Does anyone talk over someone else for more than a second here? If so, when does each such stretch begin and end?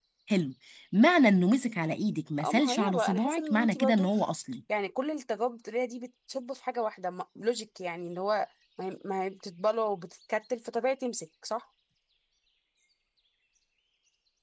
2.4-4.1

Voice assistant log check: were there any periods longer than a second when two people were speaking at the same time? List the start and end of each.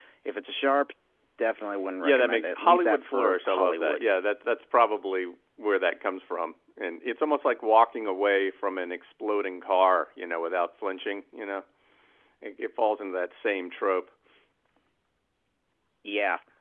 2.0-4.0

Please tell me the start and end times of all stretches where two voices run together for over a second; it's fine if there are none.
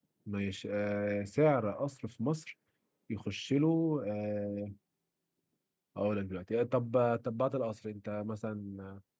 none

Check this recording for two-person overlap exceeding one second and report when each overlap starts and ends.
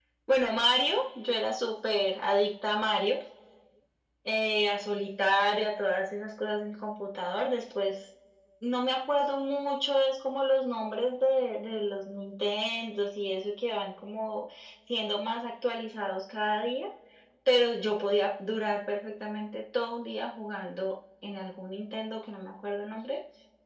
none

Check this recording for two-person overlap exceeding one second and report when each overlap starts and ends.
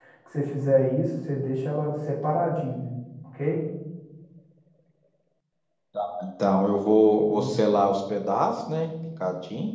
none

